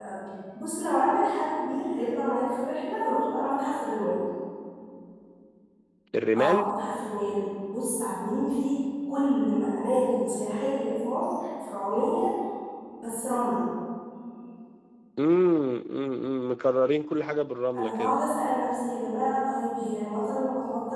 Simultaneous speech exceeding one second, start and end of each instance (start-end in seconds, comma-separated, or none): none